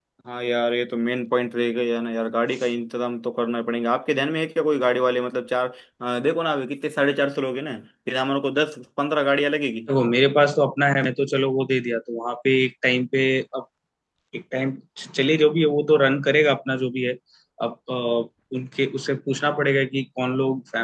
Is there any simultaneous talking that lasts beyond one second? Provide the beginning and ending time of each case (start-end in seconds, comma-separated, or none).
none